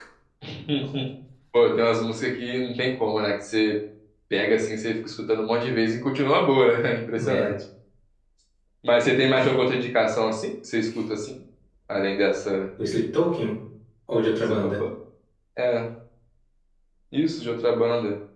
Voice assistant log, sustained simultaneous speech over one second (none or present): none